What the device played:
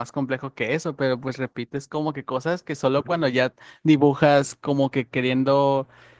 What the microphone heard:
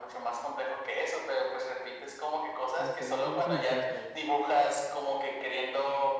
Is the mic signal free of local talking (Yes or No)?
No